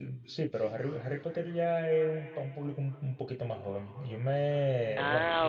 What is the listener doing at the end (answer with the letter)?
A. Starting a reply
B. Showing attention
B